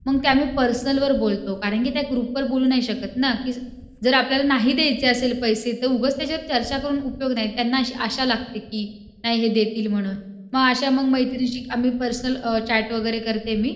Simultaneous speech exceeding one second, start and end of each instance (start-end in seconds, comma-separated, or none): none